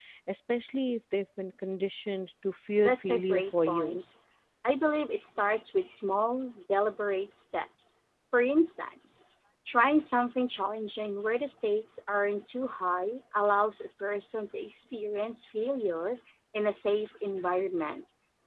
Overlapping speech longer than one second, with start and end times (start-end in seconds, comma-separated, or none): 2.8-4.1